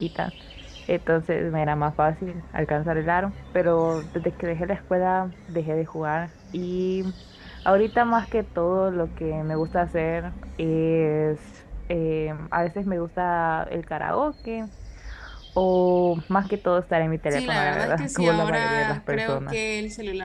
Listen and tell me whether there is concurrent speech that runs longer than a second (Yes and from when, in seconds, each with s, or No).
Yes, from 17.3 s